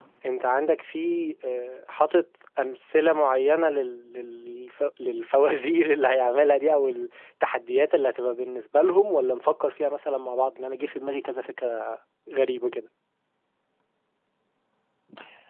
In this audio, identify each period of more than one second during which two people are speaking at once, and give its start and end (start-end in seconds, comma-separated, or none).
none